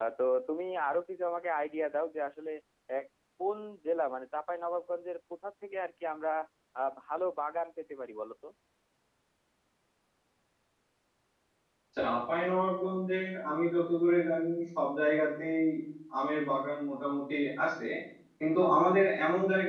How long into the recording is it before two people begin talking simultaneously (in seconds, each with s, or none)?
none